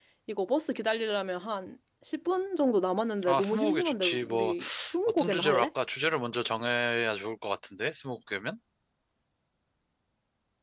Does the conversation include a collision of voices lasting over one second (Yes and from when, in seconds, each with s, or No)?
Yes, from 3.2 s